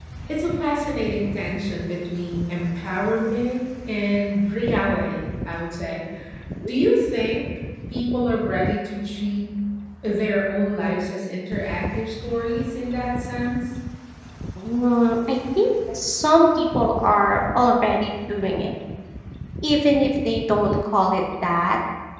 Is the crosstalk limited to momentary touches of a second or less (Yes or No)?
Yes